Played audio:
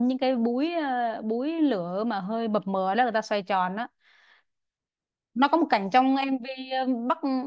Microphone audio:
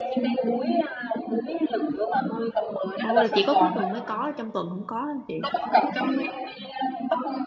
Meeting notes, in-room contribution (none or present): present